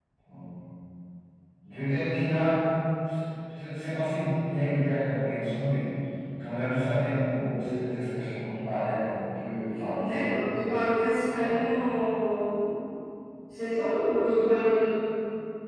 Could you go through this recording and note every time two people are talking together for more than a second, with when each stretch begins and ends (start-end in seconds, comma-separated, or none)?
none